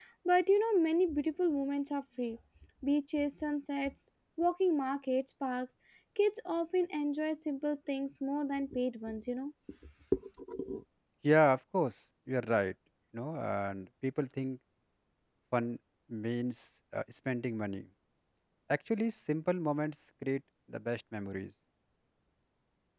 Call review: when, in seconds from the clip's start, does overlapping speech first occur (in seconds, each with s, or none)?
none